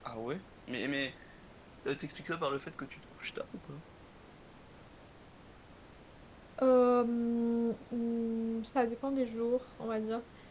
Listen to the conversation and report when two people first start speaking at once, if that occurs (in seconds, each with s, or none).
none